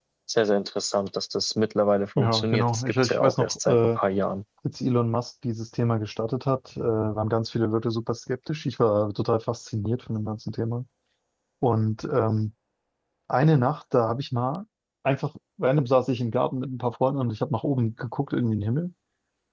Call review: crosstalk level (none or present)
present